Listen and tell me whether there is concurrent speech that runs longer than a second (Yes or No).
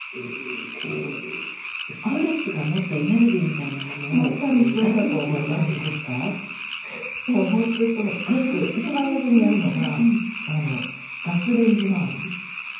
Yes